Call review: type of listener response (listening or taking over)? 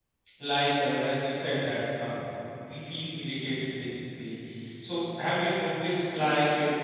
listening